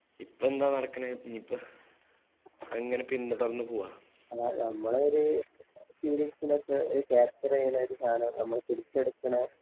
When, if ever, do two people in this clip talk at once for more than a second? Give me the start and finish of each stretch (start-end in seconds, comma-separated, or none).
none